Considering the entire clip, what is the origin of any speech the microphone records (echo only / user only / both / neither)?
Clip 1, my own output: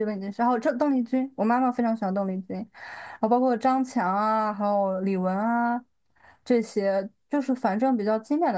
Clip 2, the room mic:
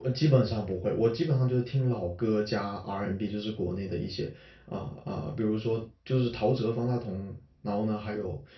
user only